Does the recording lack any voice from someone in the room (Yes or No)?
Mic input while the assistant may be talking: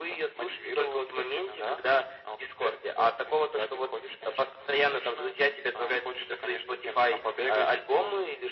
Yes